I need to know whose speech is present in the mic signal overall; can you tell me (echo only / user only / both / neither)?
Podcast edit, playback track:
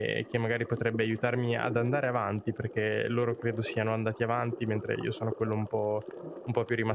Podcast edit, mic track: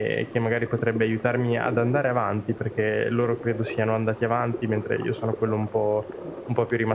echo only